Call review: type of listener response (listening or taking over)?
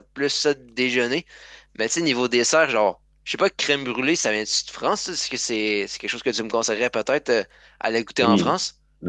taking over